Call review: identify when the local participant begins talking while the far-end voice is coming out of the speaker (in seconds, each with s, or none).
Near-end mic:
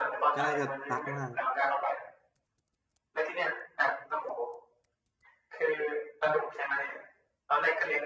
0.3 s